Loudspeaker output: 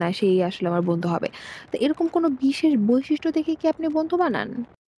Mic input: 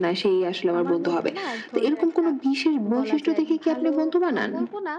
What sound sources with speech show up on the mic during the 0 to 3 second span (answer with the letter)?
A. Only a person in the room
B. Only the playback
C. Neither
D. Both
D